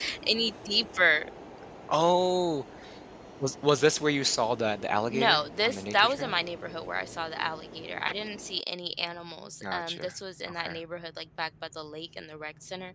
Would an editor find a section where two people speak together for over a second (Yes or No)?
Yes